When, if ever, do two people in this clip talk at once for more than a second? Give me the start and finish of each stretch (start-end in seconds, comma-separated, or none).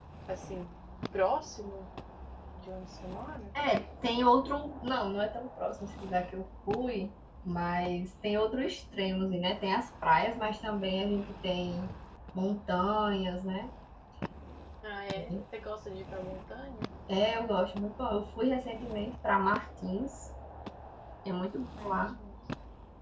none